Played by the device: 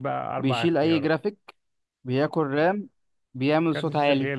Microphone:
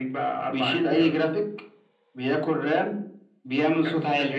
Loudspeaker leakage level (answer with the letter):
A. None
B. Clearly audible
B